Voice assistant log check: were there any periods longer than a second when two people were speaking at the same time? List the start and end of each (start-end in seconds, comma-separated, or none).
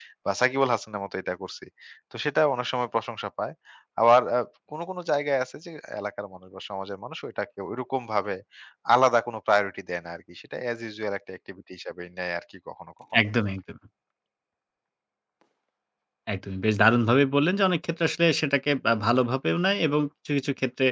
none